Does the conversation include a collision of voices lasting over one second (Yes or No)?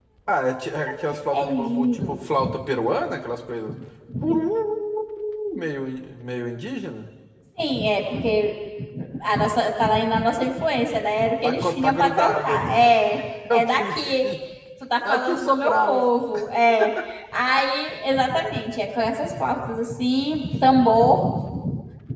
Yes